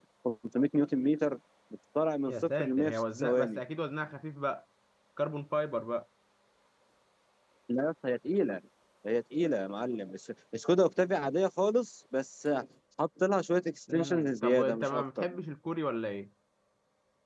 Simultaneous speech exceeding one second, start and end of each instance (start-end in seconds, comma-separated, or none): 2.3-3.6, 13.9-15.2